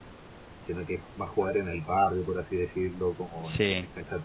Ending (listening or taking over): listening